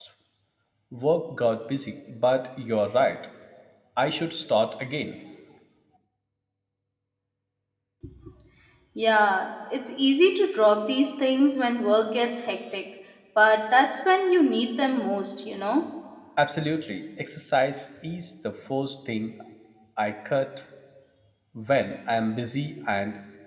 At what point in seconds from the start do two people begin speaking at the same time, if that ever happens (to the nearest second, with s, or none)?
none